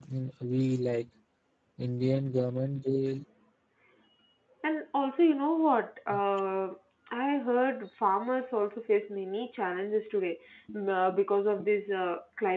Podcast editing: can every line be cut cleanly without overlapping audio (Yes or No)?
Yes